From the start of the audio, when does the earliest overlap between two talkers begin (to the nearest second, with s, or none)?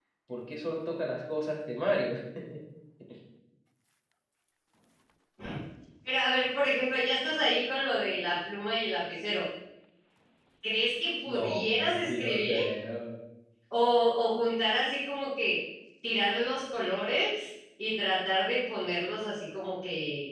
11 s